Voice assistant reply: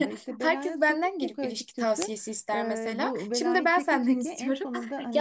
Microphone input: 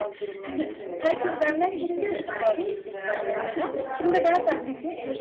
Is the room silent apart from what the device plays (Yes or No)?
No